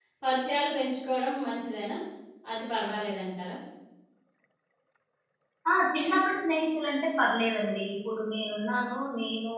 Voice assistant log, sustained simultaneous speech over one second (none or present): none